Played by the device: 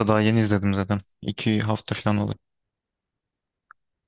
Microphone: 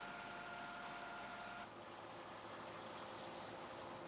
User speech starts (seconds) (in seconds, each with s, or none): none